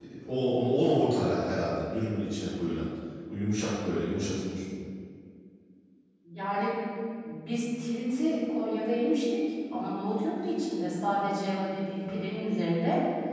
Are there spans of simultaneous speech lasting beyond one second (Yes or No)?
No